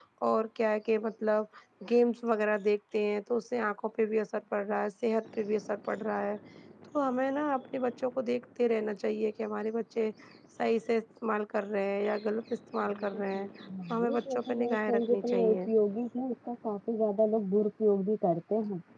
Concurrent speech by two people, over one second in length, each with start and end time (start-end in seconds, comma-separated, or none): 14.0-15.6